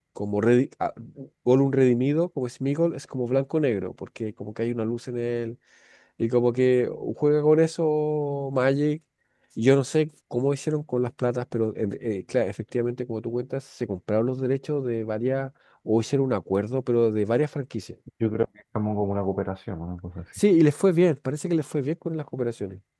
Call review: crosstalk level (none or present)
none